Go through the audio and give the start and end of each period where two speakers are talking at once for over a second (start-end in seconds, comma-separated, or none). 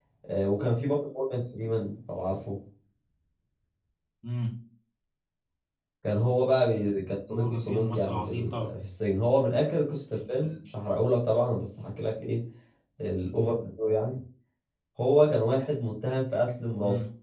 7.3-8.8